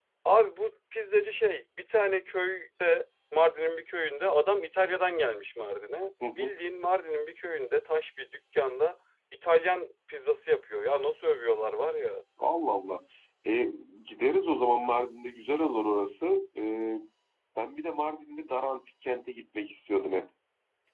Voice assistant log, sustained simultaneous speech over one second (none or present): none